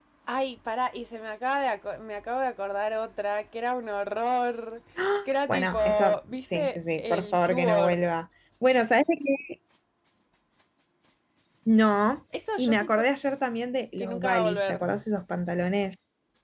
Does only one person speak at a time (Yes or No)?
No